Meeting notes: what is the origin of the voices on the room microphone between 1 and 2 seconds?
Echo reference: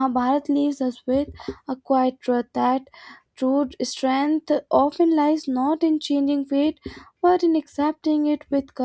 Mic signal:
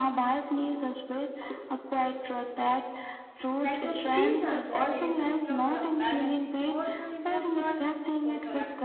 echo only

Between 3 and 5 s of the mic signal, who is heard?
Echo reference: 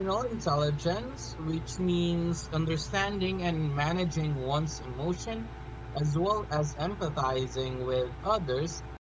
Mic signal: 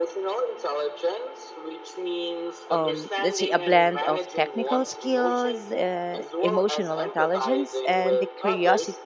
both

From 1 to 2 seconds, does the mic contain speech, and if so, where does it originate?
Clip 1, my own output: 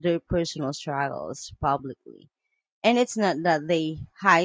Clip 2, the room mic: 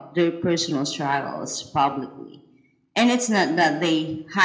echo only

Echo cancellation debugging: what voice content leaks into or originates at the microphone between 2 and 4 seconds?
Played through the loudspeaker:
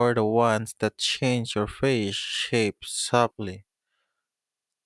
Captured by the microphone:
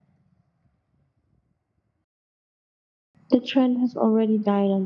user only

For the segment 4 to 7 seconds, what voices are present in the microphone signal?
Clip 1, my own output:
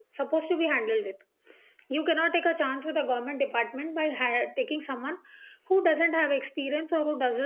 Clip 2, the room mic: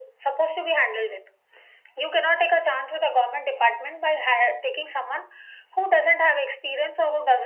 echo only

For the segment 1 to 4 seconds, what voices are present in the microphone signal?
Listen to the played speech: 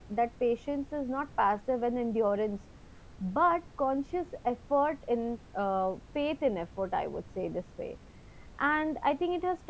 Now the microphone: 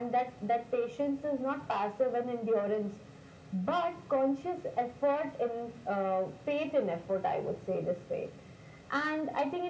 echo only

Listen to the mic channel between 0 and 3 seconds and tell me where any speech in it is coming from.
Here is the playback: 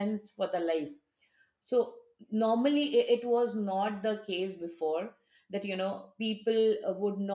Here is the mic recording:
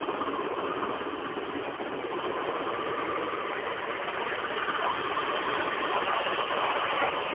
neither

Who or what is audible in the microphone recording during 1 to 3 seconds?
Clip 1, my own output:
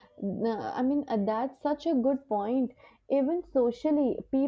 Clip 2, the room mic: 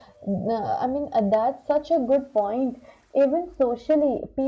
echo only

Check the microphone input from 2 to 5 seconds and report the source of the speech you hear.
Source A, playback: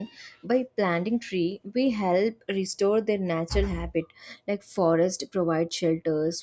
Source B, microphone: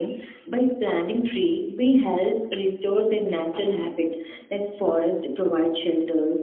echo only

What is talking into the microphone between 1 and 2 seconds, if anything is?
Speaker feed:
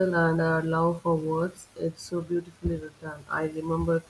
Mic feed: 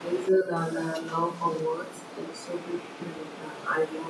echo only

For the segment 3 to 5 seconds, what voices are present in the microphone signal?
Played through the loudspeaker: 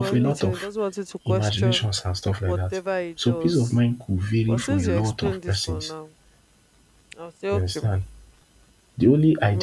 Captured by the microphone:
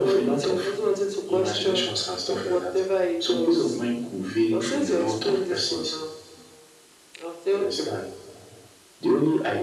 echo only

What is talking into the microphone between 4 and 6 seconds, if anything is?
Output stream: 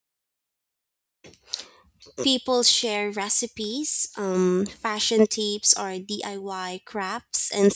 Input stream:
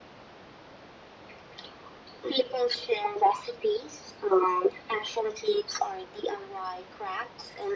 echo only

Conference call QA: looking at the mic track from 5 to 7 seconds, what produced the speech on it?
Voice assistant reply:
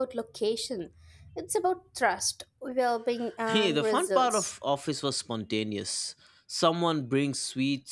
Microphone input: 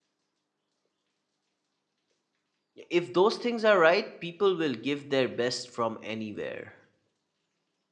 user only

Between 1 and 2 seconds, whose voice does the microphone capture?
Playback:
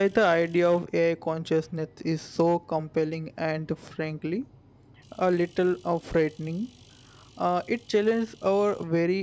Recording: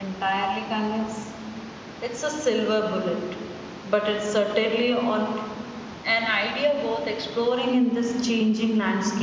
user only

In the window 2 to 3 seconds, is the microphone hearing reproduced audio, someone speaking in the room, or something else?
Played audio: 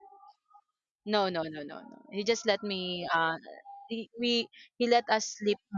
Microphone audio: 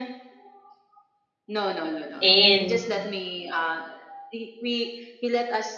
both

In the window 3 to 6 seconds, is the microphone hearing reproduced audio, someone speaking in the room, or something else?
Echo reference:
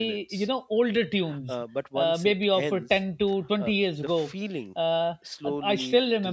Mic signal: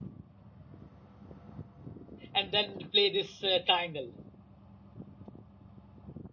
user only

